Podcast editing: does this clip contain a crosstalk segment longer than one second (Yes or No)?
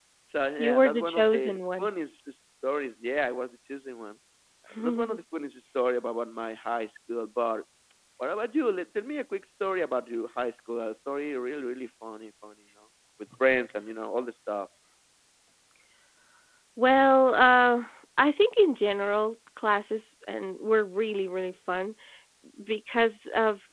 Yes